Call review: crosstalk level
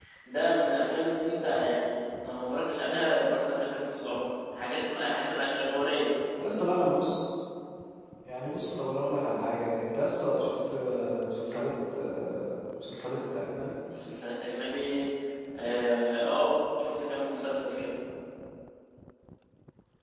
none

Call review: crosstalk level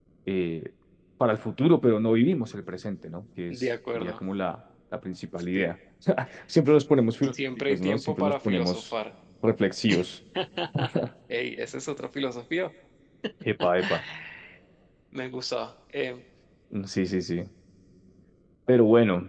present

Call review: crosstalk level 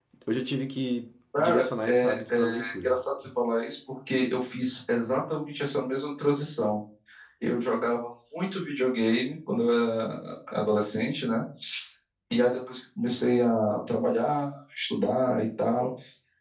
present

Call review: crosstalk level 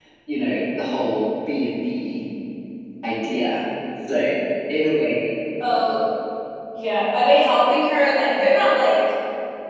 none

